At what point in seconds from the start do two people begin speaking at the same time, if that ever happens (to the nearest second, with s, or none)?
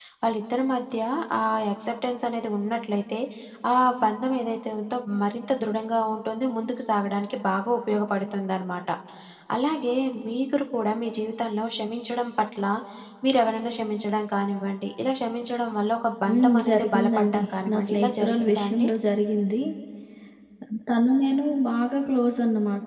16 s